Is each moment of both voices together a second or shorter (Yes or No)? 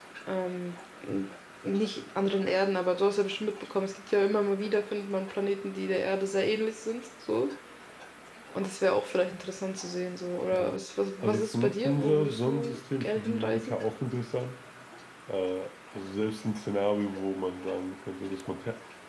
No